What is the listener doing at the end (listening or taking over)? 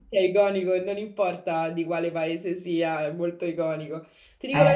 listening